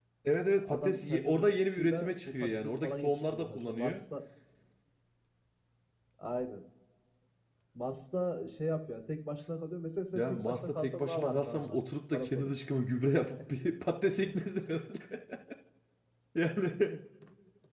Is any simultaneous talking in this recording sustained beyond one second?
Yes, from 0.6 s

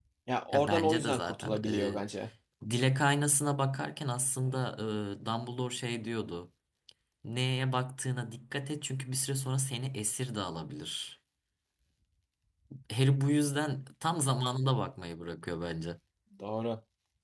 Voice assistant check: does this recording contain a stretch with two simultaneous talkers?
Yes, from 0.5 s

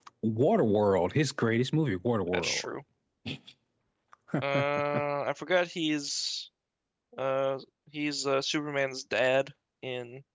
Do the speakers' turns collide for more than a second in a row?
No

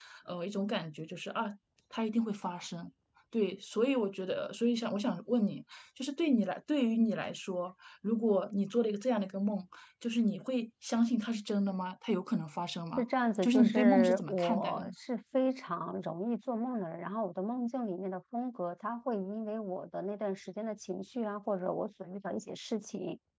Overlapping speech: Yes, from 13.4 s

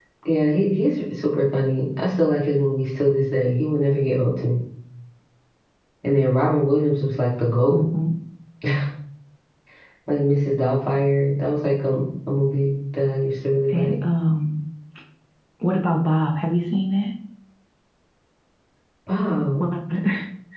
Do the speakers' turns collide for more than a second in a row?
No

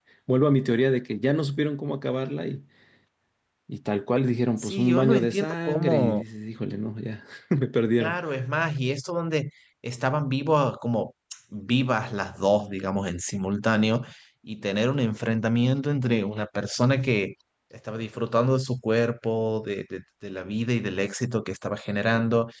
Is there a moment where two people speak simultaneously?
Yes, from 4.6 s

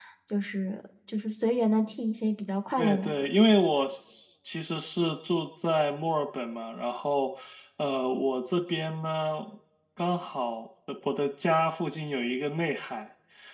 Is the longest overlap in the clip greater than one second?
No

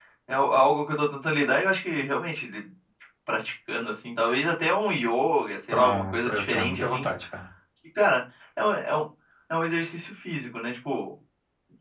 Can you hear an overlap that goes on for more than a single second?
Yes, from 5.7 s

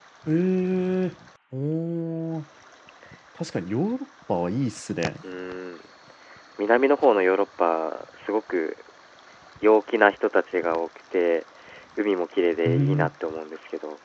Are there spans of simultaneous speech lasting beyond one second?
No

